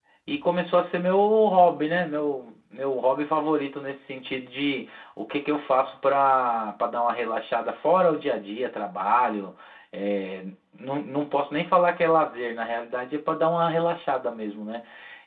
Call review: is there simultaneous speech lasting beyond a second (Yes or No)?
No